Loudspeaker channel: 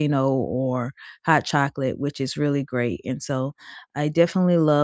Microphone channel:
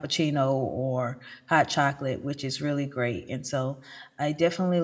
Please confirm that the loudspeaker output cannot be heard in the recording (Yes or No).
No